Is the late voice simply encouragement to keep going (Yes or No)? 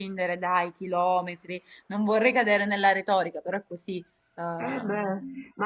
No